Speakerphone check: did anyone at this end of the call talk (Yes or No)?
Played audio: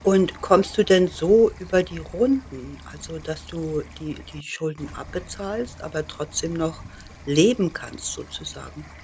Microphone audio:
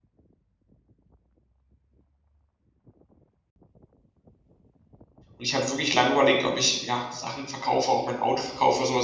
Yes